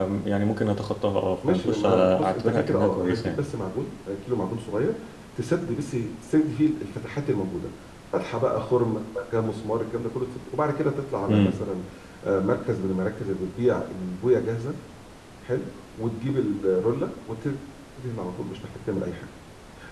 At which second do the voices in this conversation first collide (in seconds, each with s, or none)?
1.5 s